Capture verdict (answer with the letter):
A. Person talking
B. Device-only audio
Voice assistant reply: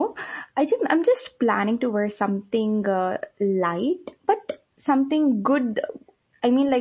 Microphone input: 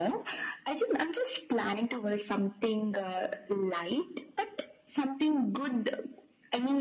B